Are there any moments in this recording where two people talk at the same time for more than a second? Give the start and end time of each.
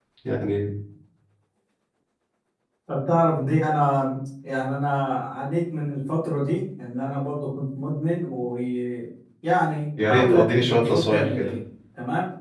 10.0-11.5

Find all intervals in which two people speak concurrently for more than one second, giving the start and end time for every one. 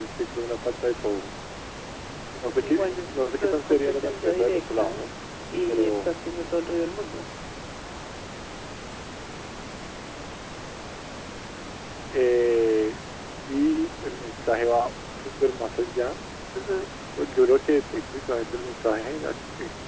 3.3-5.1

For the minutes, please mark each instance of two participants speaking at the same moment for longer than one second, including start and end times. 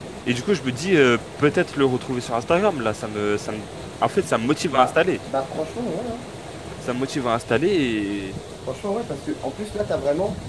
none

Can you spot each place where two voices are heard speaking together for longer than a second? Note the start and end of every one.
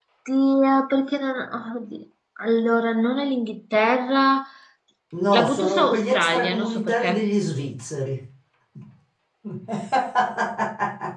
5.3-7.3

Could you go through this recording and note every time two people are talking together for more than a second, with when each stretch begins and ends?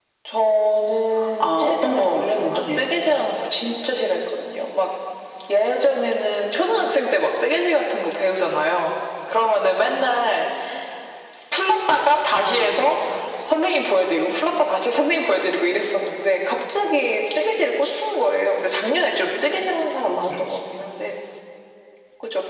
1.4-2.9

